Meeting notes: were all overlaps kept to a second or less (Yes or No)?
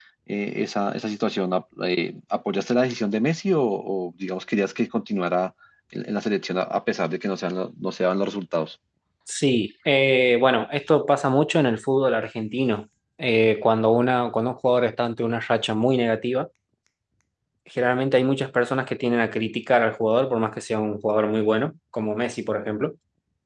Yes